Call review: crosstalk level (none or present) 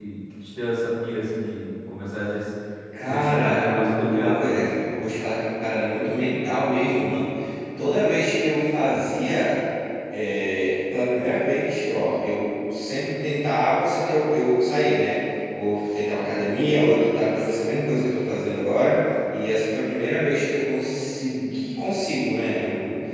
present